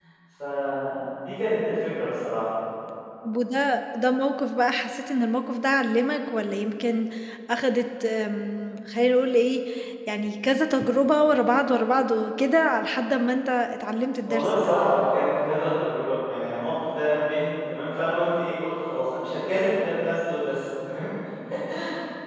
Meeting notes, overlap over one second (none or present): none